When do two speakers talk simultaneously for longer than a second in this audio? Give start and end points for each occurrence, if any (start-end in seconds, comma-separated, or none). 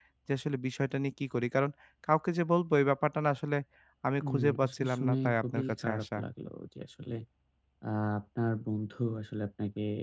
4.2-6.2